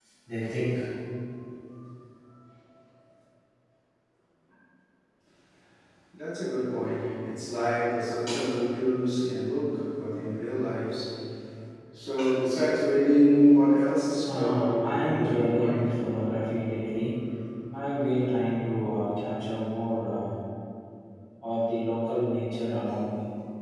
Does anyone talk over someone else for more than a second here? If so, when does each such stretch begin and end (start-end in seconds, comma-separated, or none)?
14.3-15.9